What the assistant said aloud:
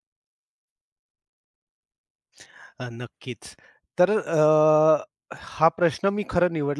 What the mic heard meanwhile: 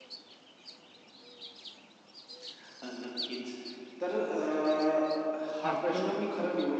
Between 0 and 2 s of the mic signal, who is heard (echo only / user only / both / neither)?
neither